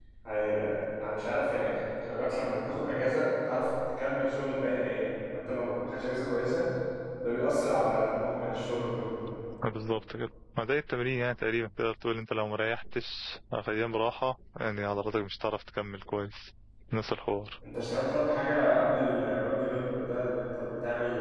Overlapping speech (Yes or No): No